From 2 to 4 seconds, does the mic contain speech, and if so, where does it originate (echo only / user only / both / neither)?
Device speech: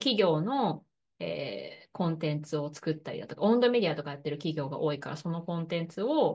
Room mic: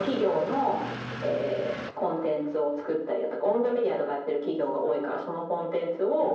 echo only